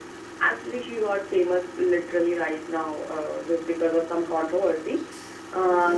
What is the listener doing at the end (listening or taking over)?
taking over